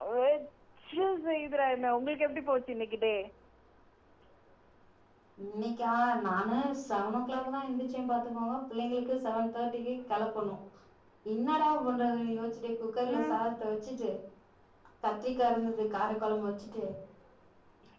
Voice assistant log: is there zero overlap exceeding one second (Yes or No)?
Yes